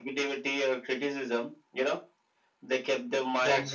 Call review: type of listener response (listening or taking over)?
listening